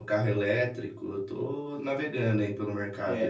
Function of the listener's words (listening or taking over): taking over